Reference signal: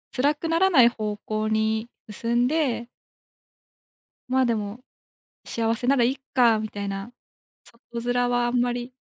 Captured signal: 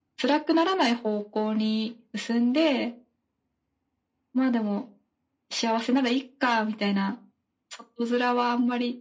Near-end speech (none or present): none